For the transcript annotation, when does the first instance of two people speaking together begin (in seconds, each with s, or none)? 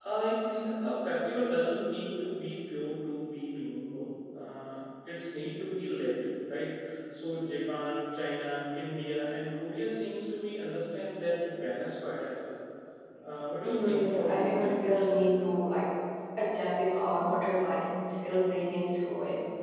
13.6 s